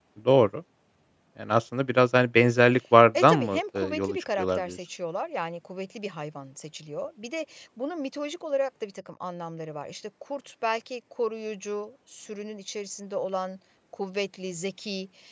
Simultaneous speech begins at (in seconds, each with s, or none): 3.1 s